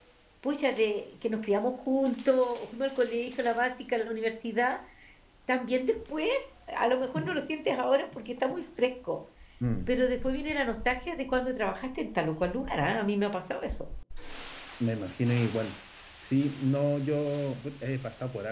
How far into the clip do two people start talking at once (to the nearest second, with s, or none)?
none